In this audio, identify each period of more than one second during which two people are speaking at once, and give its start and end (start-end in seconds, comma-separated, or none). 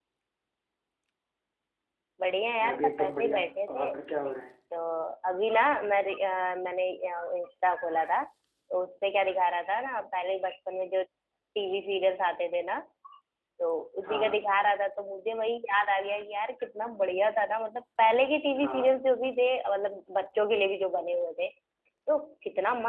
2.6-3.9